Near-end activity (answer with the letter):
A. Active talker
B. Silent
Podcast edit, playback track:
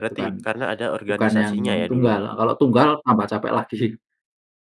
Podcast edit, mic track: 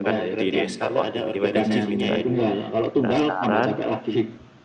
A